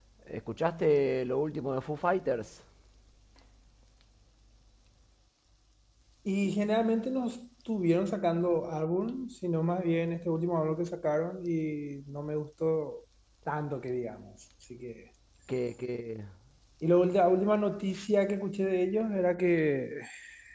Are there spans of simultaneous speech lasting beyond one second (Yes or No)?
No